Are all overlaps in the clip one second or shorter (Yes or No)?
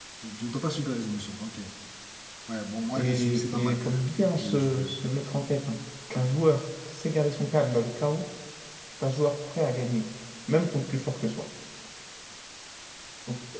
No